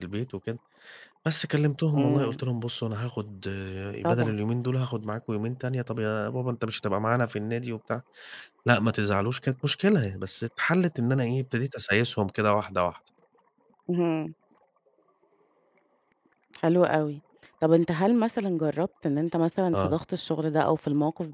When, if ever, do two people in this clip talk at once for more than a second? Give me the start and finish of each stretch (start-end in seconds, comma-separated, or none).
none